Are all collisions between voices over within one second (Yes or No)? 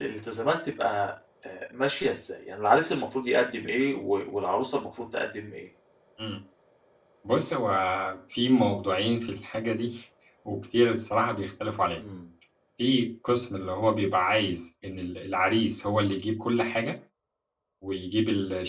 Yes